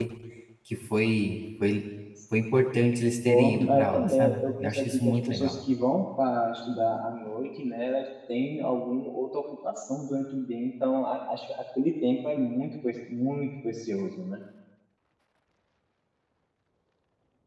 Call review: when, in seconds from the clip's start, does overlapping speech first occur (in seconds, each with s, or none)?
3.2 s